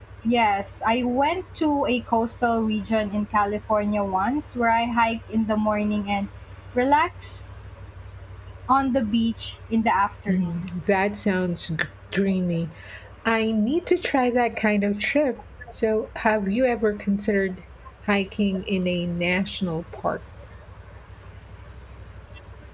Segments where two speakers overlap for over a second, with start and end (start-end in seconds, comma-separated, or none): none